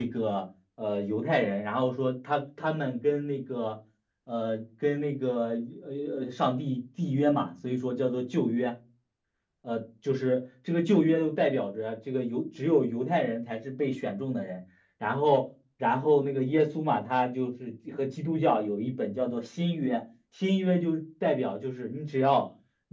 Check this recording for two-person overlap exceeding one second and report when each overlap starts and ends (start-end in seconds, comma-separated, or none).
none